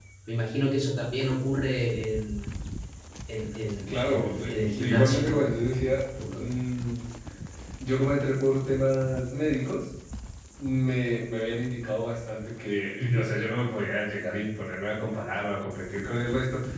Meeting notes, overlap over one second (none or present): present